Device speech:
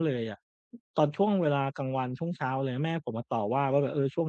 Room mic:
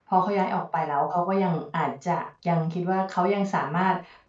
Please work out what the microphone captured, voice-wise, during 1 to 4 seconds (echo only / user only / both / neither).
user only